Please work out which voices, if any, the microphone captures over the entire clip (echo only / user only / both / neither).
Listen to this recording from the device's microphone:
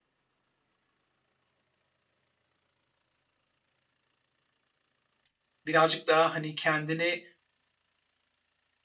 user only